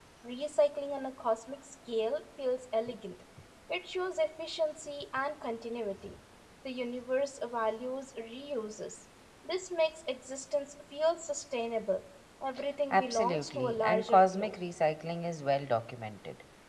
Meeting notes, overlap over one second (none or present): present